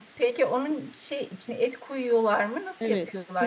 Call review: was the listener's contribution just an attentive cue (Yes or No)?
No